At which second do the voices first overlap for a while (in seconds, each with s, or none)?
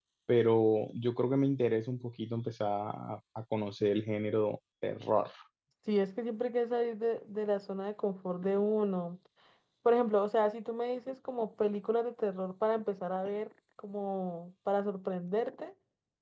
none